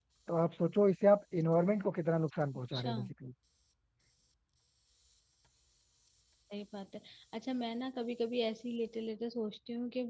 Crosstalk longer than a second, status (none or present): none